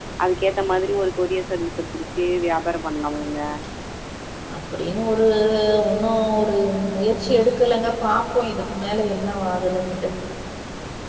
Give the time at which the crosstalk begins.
none

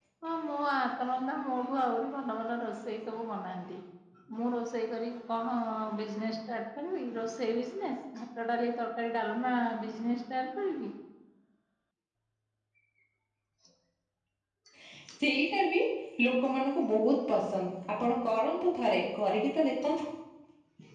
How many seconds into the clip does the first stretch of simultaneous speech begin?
none

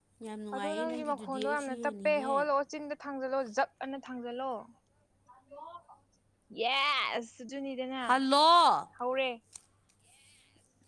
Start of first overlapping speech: 0.6 s

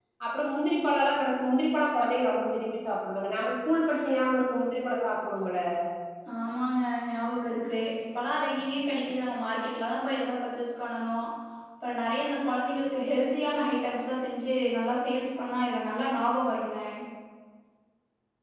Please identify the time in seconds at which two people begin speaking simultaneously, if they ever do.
none

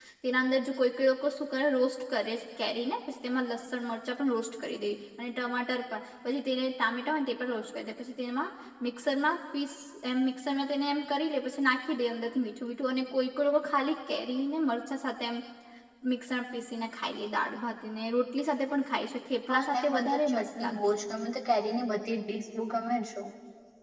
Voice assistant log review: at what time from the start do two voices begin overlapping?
19.5 s

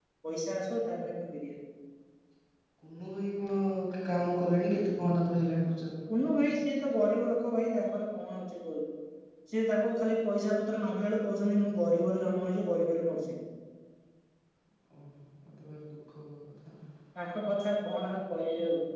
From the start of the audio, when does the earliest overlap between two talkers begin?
none

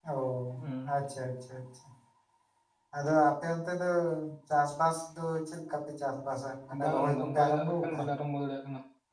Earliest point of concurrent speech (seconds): 6.7 s

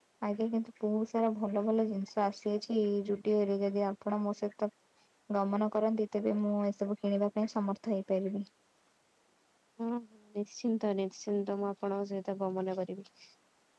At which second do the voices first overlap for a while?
none

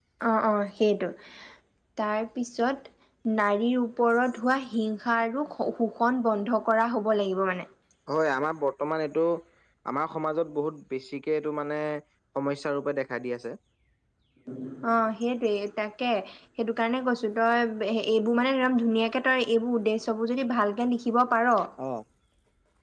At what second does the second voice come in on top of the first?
none

